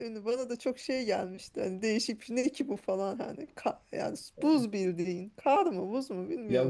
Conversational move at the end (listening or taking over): taking over